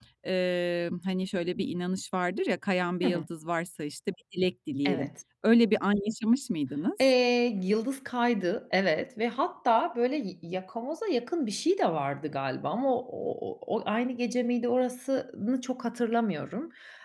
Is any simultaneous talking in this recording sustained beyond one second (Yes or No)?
No